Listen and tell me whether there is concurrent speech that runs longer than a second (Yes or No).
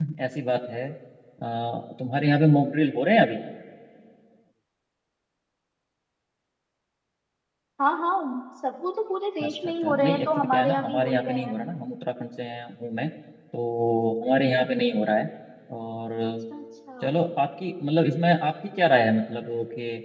Yes